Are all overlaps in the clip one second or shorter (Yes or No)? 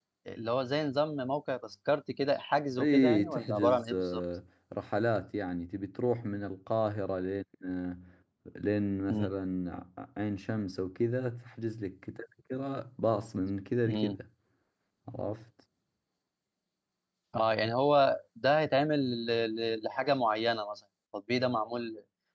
No